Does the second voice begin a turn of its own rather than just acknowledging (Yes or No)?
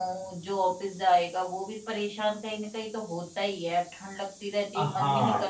Yes